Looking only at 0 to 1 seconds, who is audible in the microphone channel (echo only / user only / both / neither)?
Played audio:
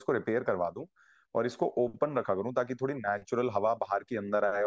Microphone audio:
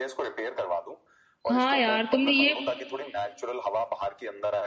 echo only